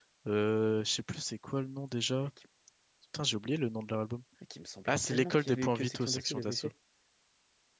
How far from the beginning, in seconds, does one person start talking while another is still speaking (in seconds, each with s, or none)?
4.9 s